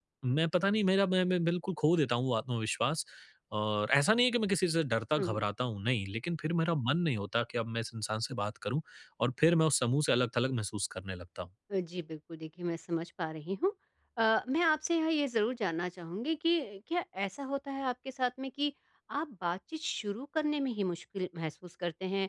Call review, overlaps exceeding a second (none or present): none